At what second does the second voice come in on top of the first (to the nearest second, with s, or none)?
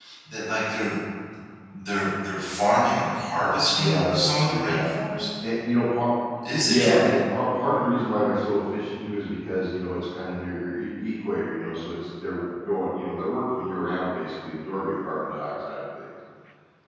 4 s